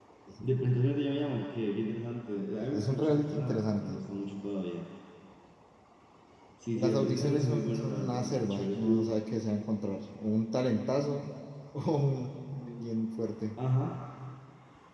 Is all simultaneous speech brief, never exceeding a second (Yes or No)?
No